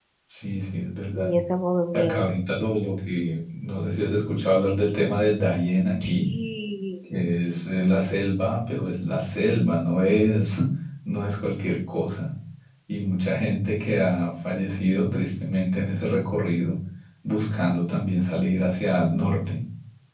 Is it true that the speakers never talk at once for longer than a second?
Yes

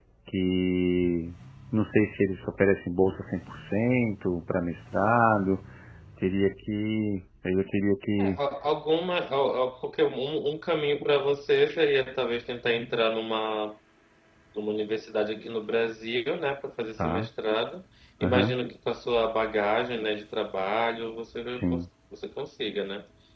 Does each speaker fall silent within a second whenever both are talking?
Yes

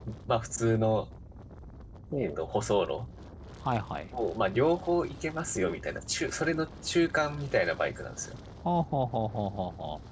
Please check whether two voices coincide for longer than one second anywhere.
No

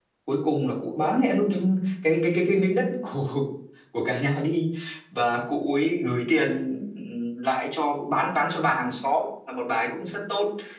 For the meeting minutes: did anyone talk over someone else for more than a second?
No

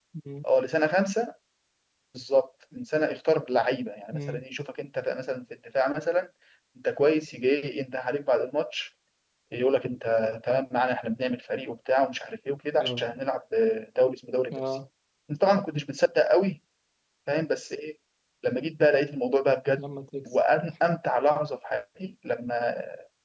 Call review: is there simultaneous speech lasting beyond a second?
No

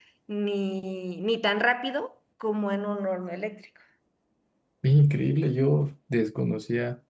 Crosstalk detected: No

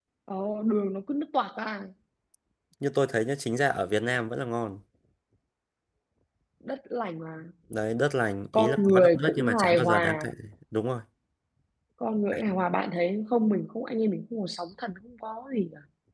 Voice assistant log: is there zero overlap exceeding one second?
No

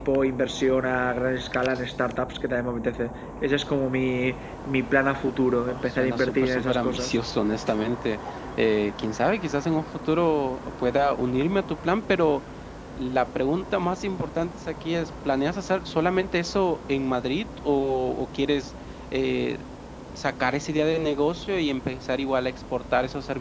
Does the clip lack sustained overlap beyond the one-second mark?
No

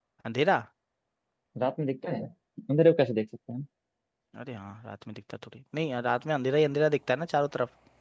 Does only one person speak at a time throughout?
Yes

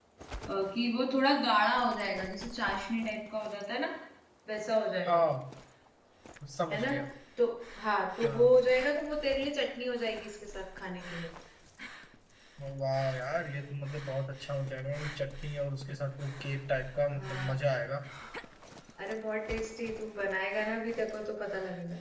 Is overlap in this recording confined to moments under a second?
Yes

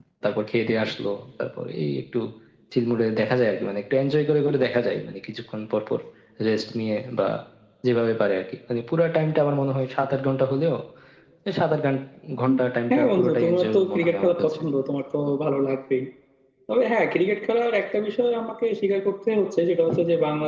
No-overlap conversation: No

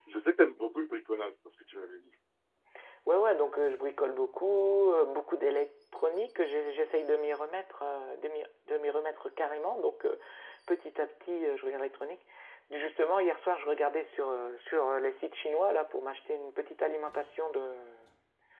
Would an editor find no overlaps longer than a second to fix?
Yes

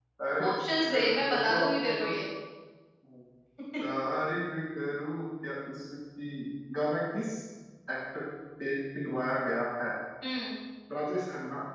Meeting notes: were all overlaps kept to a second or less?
No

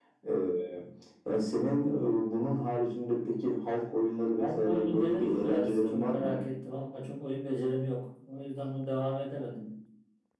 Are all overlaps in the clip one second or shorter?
No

